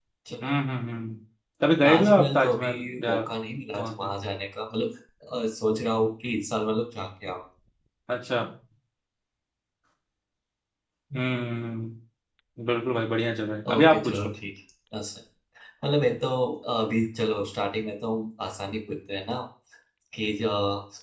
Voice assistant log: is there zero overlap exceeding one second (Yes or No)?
No